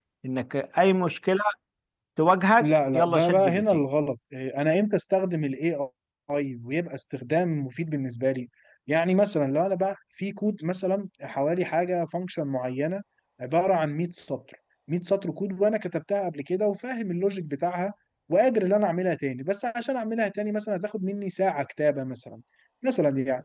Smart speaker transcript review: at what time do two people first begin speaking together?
2.6 s

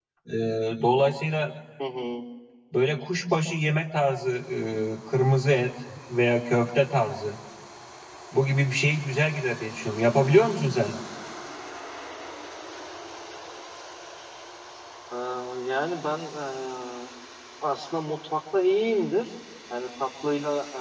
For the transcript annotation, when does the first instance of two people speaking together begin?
none

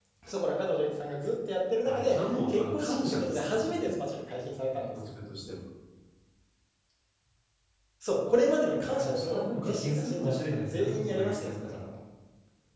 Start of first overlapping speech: 1.8 s

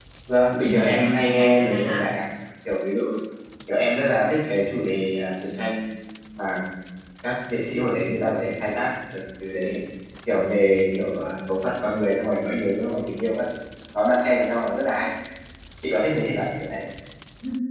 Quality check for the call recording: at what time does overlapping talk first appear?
0.6 s

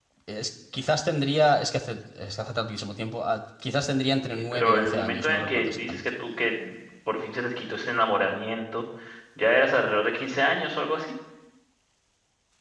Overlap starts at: 4.2 s

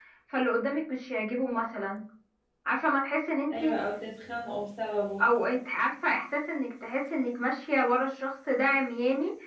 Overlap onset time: none

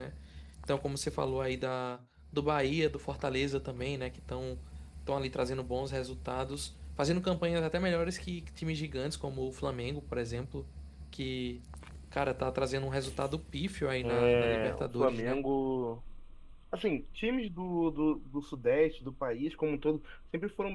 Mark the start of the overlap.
14.0 s

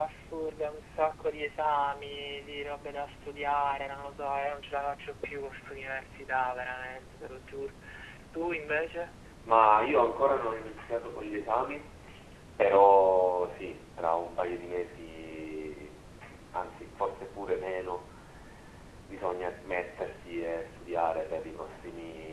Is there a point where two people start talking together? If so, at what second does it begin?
none

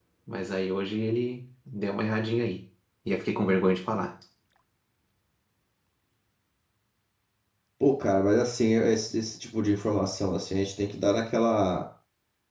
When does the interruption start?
none

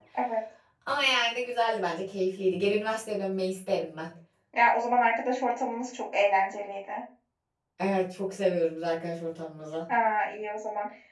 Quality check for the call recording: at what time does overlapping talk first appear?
none

